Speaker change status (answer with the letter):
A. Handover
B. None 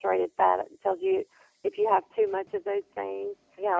A